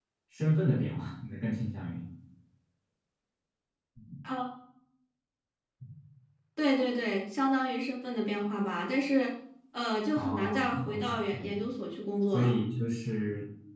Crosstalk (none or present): present